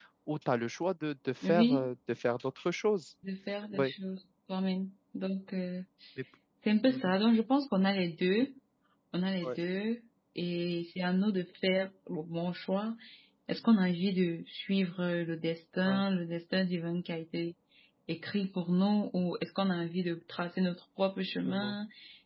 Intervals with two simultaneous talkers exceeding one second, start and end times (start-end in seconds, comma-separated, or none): none